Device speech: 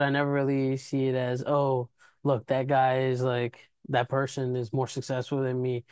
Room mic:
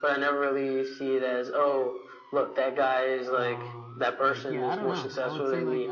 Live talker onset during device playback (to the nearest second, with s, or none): 3 s